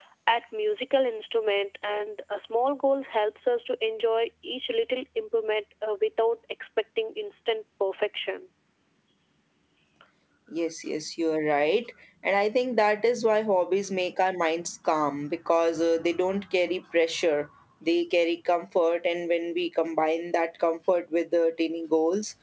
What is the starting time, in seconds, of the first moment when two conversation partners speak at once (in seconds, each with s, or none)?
none